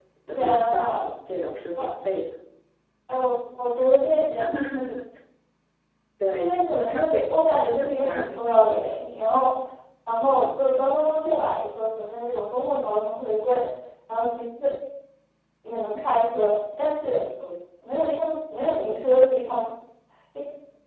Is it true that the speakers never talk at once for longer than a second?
No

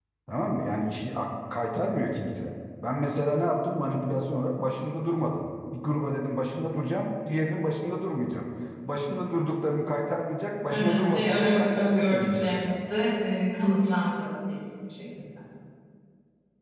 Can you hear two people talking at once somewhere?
Yes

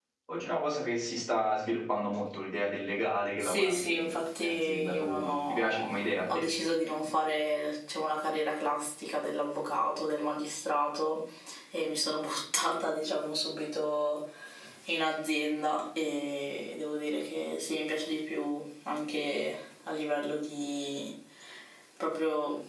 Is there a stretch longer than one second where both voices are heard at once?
Yes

